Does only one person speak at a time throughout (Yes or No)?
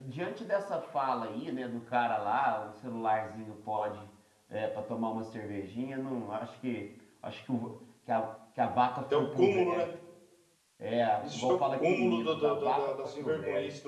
No